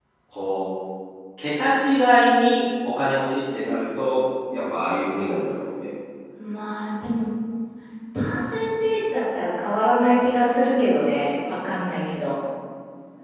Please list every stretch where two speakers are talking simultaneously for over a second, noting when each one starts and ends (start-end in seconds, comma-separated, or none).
none